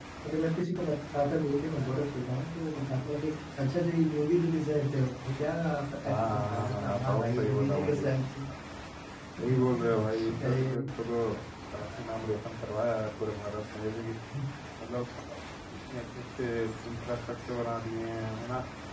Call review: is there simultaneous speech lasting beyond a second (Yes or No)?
Yes